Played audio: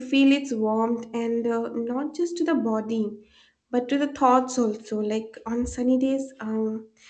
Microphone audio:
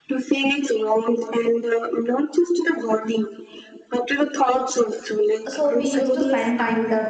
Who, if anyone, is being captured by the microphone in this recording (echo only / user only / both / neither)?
both